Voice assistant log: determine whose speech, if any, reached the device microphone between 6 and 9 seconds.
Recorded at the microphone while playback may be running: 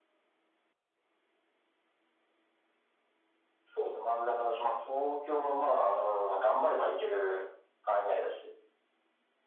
echo only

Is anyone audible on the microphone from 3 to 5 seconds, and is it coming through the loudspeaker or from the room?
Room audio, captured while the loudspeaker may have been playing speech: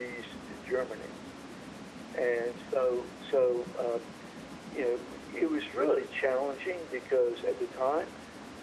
echo only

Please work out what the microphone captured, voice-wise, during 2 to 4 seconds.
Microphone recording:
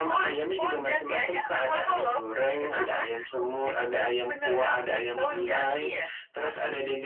echo only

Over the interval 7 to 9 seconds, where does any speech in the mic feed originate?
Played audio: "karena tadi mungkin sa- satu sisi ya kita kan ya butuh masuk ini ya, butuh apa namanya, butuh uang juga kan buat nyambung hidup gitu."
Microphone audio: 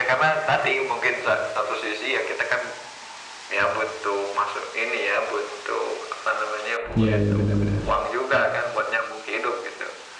both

